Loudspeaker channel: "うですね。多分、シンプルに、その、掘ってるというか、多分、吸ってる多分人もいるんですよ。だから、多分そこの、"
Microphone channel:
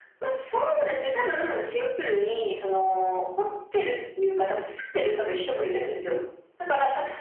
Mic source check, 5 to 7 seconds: echo only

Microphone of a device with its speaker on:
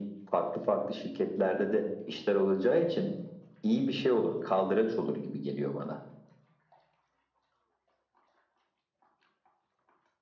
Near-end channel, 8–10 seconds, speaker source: neither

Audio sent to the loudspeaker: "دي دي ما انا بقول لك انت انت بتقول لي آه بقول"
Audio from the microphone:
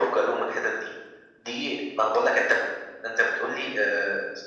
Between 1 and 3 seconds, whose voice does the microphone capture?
echo only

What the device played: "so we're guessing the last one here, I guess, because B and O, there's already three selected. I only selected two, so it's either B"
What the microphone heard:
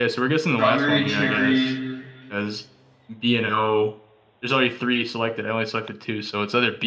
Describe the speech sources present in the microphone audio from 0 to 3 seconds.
both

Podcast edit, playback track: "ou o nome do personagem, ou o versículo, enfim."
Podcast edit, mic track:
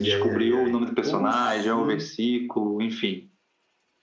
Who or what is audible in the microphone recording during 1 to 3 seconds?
both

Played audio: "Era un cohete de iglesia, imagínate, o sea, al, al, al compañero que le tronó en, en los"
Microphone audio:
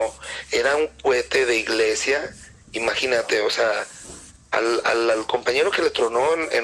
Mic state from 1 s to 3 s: echo only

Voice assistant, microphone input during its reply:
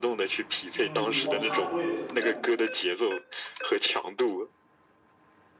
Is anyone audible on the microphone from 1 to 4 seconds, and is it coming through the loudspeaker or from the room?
both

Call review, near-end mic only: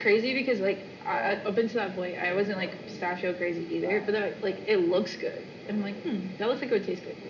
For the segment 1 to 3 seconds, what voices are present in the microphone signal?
both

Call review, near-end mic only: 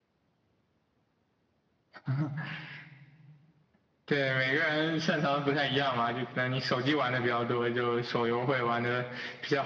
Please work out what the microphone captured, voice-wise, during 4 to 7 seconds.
echo only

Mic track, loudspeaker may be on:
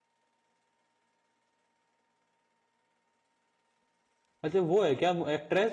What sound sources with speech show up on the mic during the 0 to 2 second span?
neither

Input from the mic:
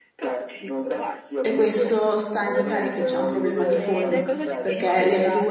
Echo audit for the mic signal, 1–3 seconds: both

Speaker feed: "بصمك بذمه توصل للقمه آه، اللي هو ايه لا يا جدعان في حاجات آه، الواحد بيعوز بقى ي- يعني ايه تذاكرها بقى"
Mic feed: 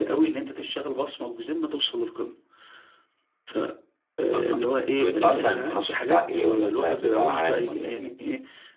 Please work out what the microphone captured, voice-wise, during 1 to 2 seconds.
echo only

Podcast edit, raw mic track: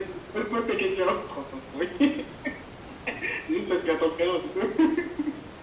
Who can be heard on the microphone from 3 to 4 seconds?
echo only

